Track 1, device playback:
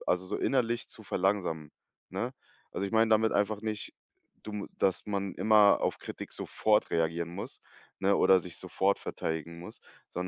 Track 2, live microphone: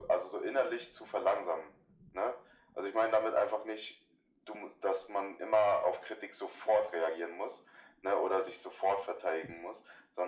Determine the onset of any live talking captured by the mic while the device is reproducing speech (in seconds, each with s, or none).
none